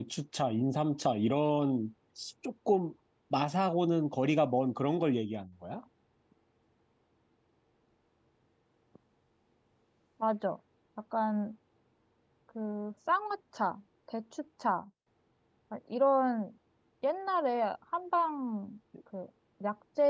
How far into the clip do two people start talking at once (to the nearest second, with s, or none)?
none